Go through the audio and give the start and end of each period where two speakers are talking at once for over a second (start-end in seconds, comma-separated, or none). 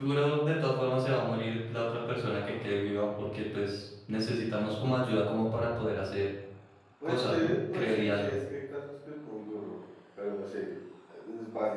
7.0-8.3